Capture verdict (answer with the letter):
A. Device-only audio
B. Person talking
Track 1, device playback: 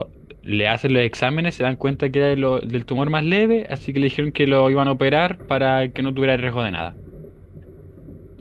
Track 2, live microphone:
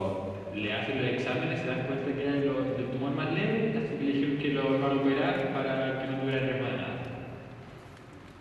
A